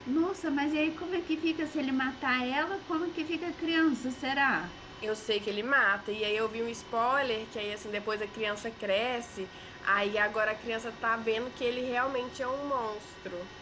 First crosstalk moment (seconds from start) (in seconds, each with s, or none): none